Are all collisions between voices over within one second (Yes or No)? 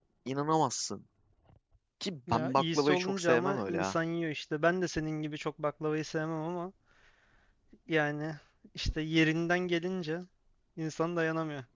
No